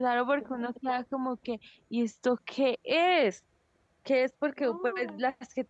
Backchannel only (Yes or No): Yes